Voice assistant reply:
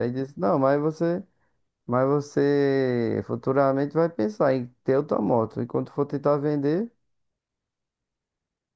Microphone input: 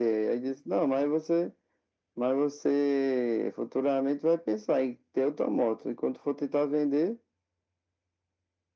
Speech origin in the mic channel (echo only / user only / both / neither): echo only